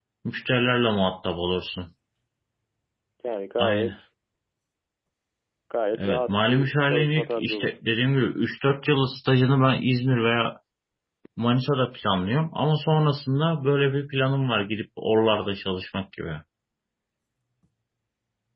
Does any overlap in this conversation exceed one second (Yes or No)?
Yes